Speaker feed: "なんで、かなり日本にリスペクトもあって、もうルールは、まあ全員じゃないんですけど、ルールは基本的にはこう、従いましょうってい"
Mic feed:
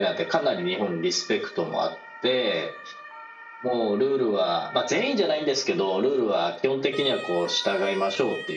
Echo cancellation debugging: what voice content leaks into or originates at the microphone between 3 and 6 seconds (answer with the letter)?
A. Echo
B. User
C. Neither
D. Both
A